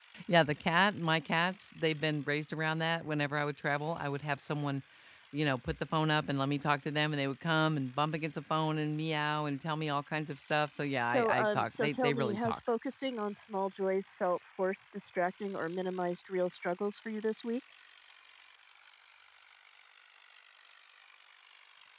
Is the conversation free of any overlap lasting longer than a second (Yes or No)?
No